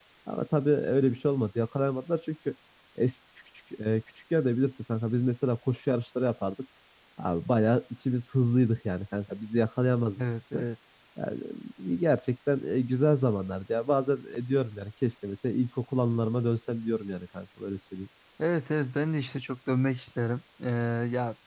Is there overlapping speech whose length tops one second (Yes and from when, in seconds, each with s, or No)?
No